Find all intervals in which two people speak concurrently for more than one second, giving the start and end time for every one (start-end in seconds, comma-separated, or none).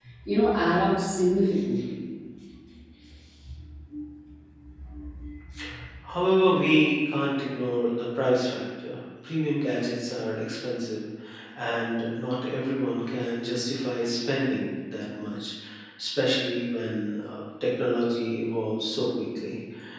none